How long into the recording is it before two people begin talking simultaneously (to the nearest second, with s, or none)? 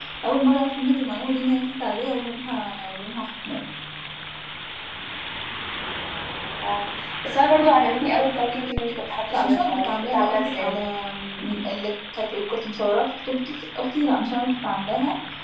9 s